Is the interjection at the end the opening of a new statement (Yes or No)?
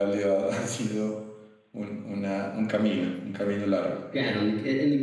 Yes